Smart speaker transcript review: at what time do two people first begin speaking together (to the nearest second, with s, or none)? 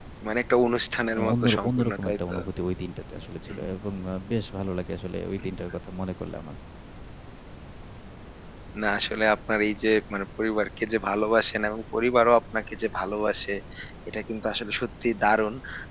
1 s